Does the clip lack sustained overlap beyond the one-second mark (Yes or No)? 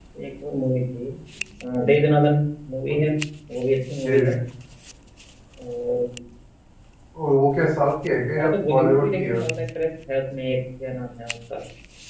No